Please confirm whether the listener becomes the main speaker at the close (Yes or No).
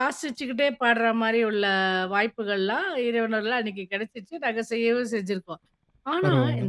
No